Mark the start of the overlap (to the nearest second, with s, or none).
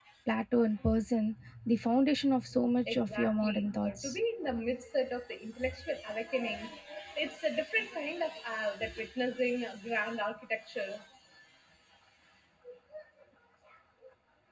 3 s